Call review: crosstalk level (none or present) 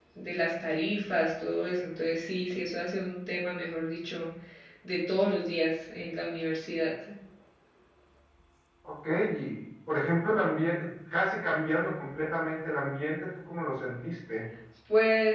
none